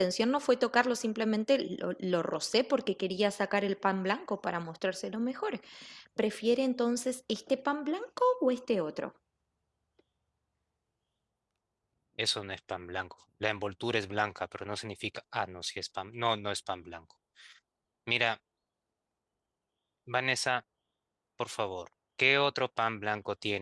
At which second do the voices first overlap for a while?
none

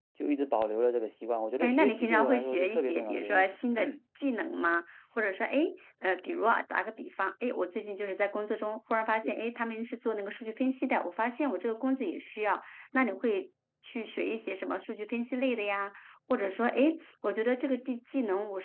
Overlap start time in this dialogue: 1.6 s

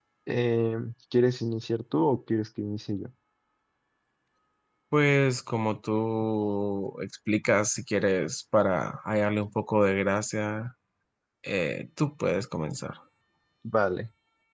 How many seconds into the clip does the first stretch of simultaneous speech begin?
none

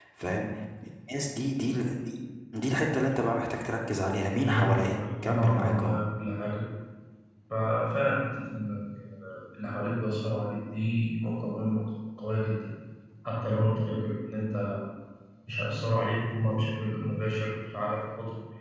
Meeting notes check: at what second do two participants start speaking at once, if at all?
4.3 s

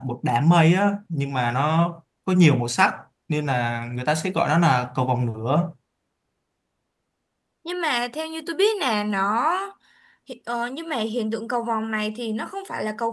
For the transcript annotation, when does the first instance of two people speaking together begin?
none

